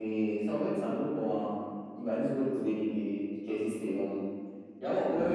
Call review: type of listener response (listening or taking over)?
listening